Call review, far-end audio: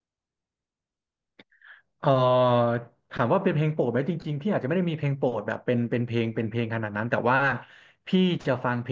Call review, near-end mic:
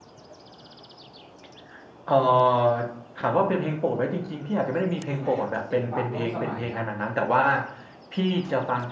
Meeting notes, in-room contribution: present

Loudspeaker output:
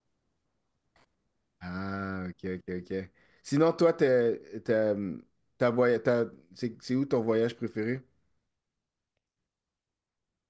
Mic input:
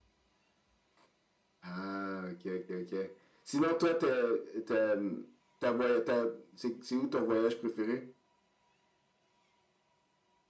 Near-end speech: none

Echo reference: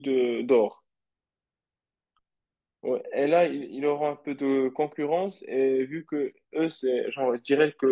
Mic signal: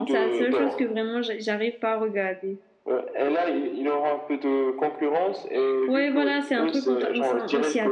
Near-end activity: present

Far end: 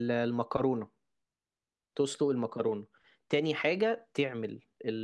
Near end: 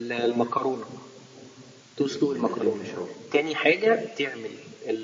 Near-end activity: present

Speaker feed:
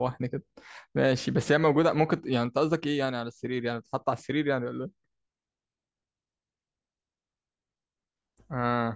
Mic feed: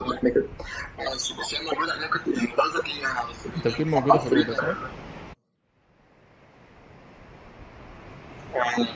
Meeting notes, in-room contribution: present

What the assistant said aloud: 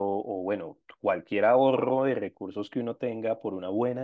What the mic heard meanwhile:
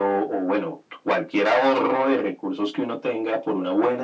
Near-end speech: none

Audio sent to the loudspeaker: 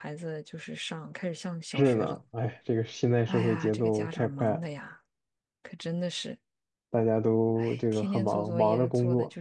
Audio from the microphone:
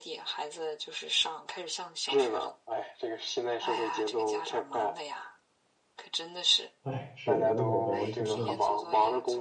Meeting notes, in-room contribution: present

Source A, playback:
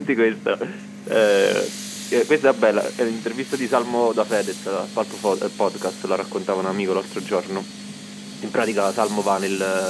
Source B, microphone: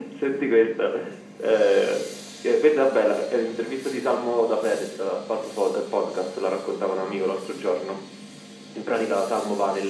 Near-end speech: none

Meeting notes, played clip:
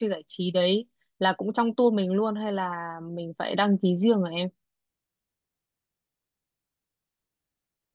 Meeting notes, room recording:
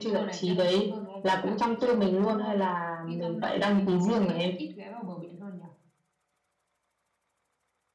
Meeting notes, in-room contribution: present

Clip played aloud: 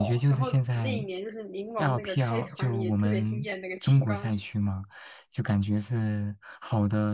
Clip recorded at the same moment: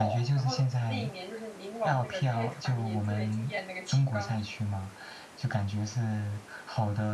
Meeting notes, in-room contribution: none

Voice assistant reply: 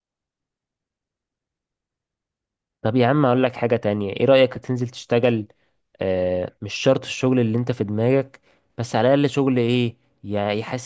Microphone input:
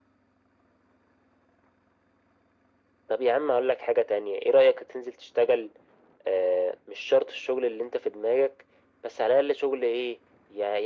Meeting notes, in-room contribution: none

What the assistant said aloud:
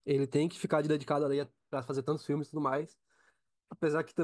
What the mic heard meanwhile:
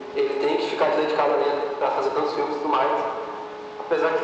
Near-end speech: none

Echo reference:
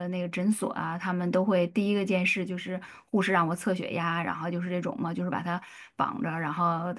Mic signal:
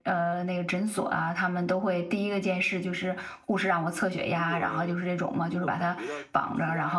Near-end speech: present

